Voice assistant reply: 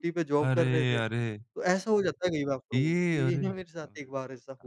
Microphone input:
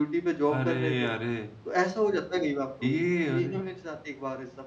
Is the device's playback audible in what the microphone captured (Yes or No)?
Yes